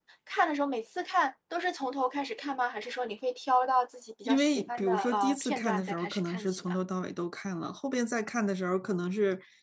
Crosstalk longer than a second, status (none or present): present